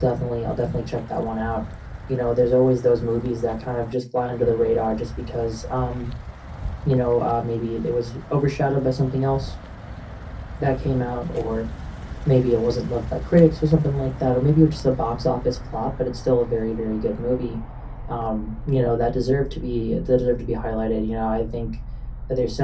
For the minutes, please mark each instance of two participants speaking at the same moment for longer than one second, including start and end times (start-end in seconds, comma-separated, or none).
none